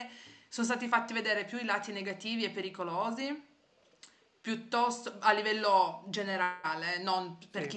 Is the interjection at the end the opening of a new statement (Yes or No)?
No